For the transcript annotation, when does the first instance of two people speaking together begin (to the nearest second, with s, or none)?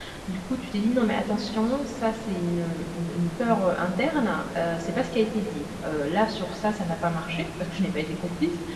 none